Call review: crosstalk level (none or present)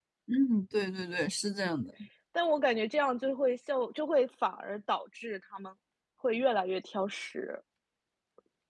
none